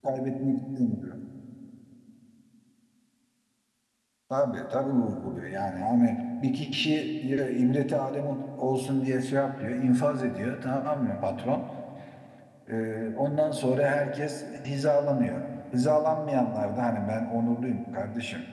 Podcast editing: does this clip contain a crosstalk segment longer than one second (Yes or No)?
No